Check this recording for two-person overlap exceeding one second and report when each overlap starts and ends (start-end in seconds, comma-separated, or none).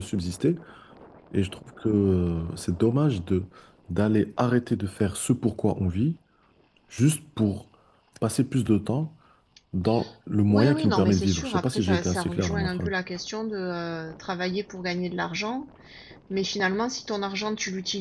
10.5-12.9